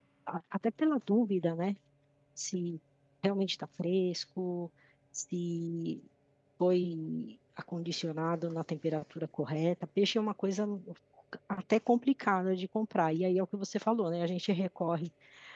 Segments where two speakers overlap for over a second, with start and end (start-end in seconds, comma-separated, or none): none